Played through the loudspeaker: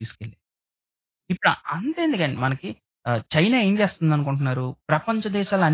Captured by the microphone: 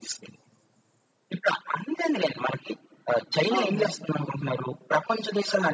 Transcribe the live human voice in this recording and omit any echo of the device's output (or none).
అవునండి.